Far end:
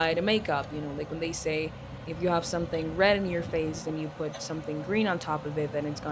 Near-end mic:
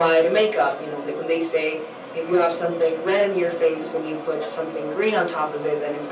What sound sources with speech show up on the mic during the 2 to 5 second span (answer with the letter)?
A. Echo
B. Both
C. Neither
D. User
A